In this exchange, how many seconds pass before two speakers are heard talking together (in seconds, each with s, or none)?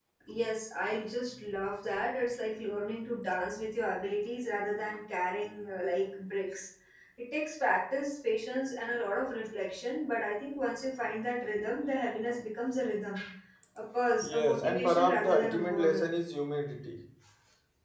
14.2 s